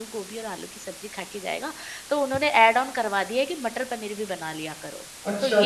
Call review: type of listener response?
taking over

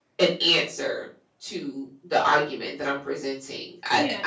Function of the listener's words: taking over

